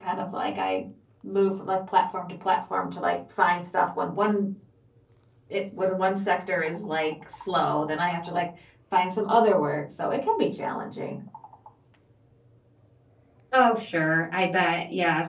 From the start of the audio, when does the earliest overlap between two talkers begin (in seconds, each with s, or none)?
none